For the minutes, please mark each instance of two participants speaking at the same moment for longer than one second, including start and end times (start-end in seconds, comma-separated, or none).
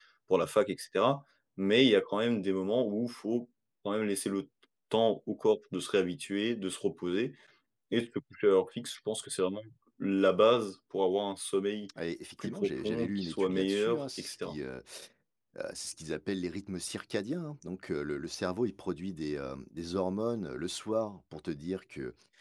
12.4-14.5